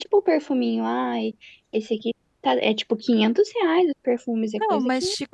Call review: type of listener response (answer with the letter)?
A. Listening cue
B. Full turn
B